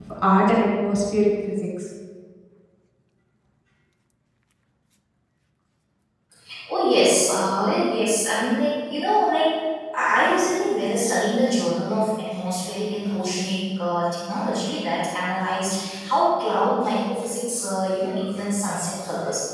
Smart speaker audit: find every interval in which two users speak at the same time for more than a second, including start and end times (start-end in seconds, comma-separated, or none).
none